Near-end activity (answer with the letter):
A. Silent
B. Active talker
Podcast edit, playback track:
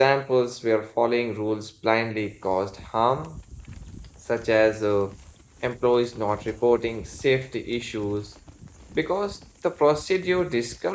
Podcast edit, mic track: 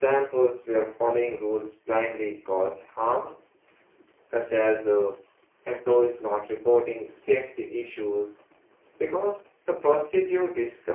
A